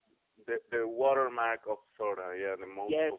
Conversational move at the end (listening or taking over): taking over